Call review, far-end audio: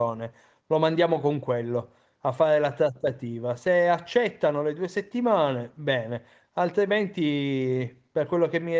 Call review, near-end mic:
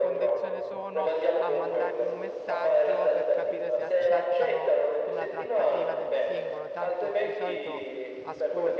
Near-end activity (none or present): present